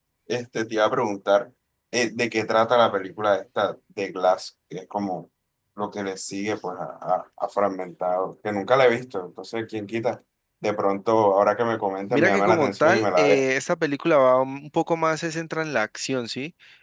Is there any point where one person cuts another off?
Yes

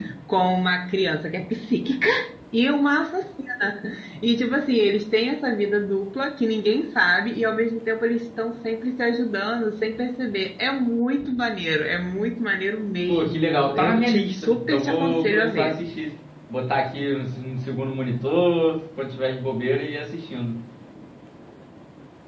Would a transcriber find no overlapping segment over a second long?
No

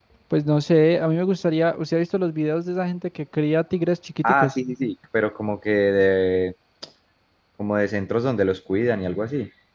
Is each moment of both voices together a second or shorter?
Yes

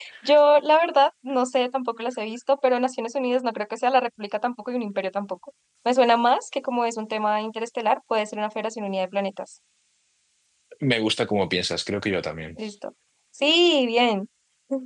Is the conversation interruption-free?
Yes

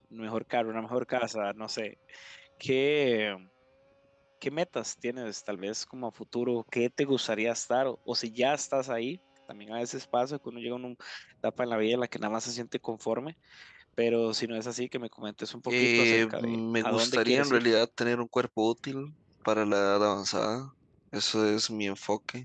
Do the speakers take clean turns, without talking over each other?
No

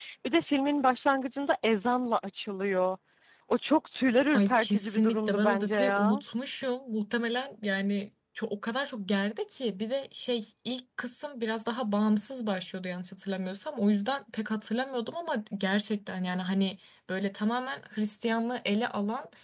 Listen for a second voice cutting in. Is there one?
Yes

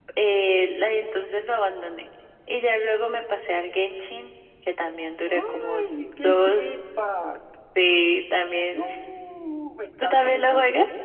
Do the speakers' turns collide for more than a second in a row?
Yes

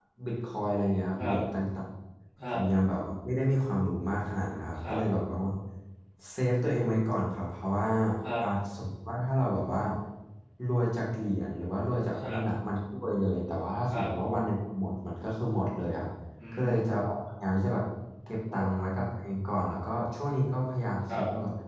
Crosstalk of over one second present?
No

